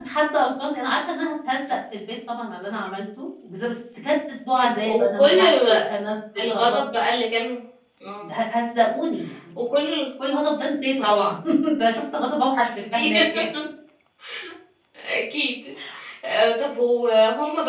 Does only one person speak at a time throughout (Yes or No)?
No